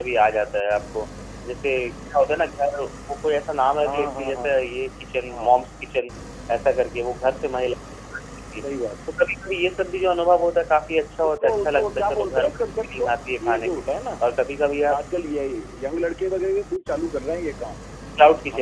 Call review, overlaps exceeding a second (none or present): present